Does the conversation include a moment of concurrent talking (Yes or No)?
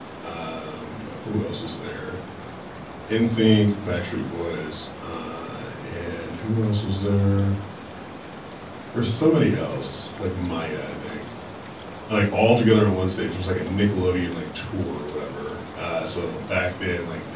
No